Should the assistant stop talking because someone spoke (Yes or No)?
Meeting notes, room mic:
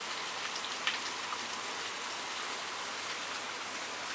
No